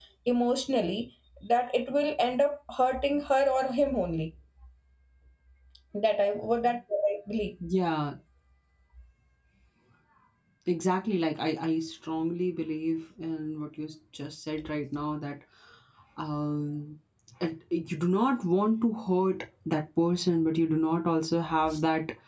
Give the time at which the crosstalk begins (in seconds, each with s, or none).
none